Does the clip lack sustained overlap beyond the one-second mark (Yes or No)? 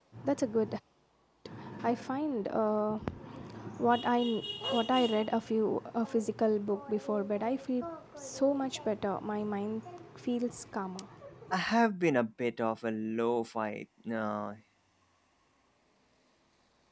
Yes